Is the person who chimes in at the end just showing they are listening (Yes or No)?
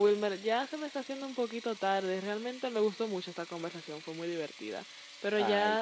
Yes